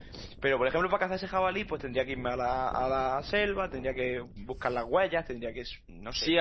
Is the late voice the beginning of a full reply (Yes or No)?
Yes